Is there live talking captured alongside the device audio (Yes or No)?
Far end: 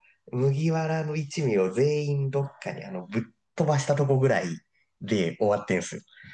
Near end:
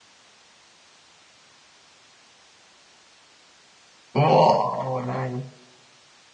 Yes